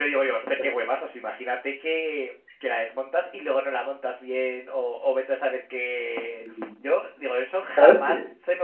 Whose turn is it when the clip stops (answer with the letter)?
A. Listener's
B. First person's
B